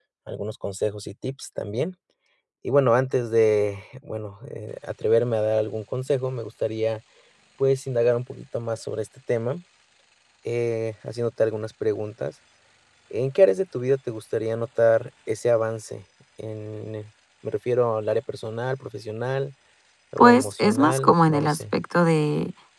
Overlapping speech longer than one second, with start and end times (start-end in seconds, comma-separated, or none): 20.2-21.6